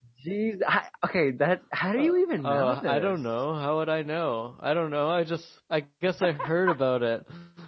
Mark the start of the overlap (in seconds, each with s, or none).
2.0 s